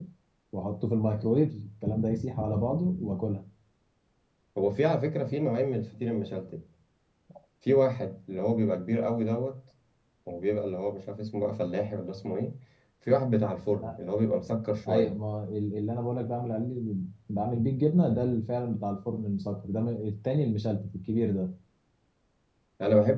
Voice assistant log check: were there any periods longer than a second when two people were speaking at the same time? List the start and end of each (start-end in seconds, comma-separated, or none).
none